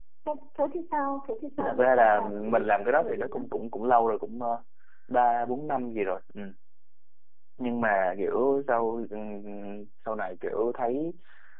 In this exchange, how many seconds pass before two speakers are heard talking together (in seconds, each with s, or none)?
1.6 s